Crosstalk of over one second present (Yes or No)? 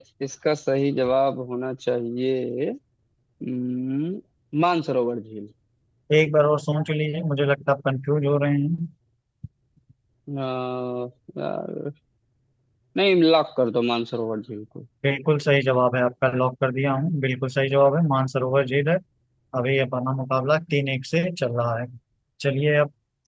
No